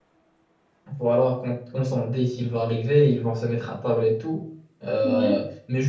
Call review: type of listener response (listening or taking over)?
listening